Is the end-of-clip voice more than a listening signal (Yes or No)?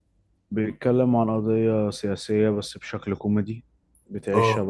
No